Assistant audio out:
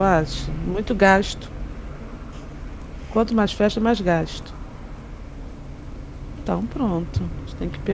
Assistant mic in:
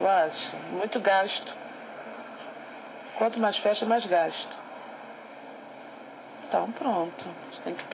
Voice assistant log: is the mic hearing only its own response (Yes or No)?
Yes